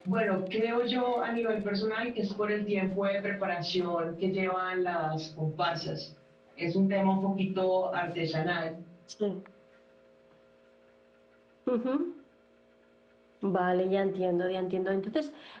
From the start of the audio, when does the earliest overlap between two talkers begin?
none

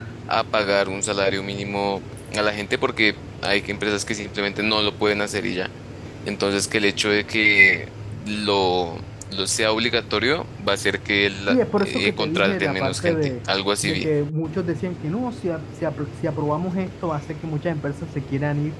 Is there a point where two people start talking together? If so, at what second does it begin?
11.5 s

